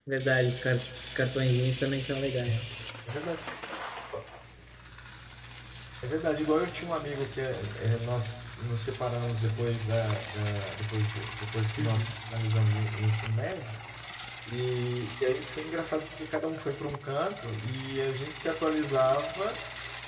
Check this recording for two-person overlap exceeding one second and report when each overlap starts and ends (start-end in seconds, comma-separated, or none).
none